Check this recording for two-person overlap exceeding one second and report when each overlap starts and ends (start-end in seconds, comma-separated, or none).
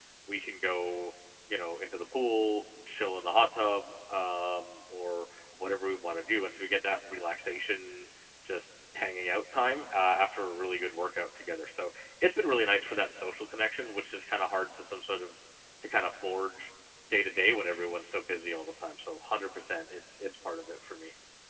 none